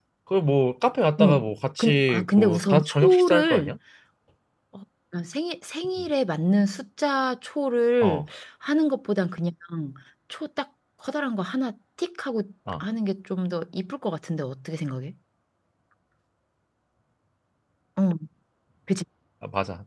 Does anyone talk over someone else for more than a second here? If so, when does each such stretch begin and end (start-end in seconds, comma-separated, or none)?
1.8-3.7